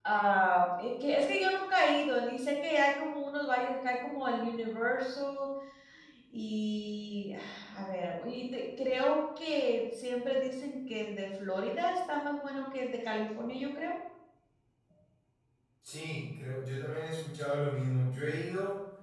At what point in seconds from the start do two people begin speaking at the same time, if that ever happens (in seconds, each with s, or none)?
none